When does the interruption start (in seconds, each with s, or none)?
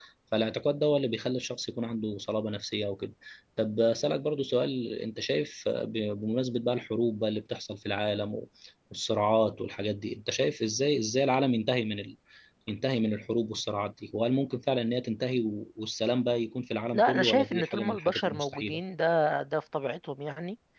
16.9 s